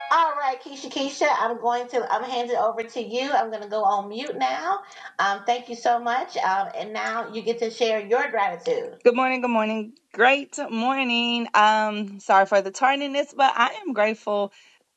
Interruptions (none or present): none